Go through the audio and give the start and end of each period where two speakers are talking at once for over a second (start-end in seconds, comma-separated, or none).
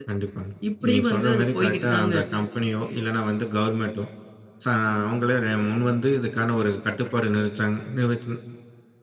0.9-2.3